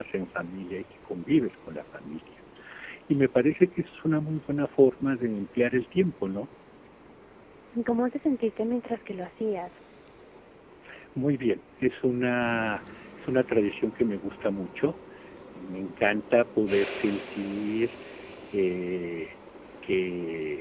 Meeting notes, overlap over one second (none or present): none